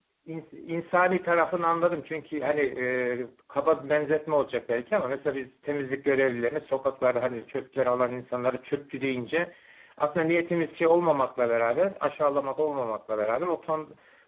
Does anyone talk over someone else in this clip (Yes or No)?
No